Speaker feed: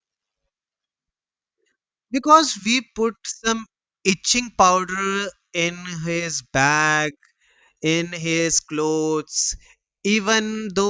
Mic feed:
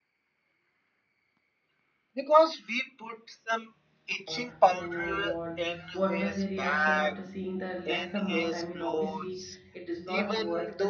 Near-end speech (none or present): present